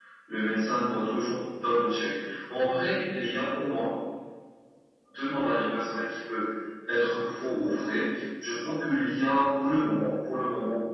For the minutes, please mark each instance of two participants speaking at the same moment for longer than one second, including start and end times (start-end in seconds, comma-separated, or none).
none